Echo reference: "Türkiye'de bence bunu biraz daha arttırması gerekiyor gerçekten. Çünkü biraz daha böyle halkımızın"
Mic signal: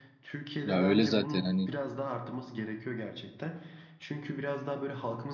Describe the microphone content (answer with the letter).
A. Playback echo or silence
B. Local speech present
B